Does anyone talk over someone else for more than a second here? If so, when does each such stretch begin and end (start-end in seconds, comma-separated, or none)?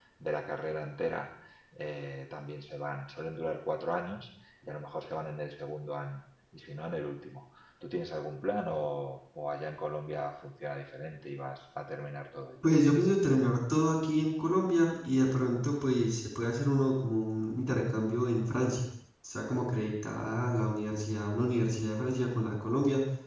none